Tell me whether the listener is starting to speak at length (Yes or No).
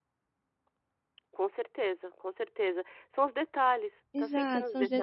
Yes